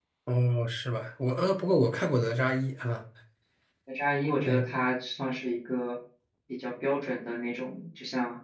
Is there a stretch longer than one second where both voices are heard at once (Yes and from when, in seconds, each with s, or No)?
No